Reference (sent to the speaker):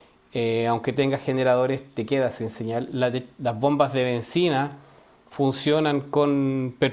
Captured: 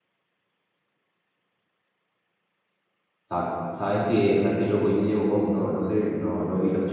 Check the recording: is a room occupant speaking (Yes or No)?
Yes